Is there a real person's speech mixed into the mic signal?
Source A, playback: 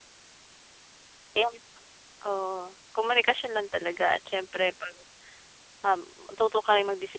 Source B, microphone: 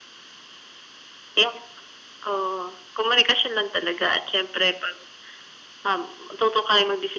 No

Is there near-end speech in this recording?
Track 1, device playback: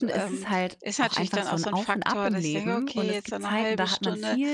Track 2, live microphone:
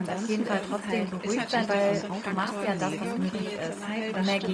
Yes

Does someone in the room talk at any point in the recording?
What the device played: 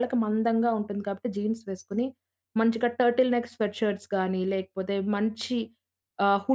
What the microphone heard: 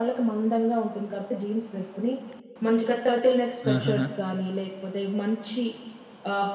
Yes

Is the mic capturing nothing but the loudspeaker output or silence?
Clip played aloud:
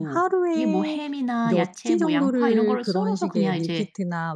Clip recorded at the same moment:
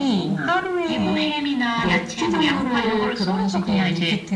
Yes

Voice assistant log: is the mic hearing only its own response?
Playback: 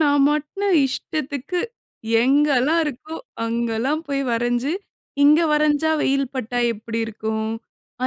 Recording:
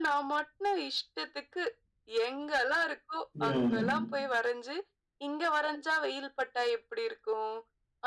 No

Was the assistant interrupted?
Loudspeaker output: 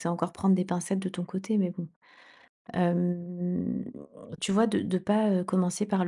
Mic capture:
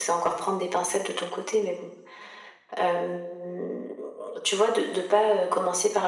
No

